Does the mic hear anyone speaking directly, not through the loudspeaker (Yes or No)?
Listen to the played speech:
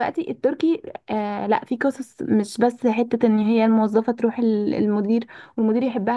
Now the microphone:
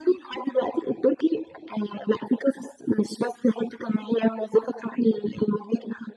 No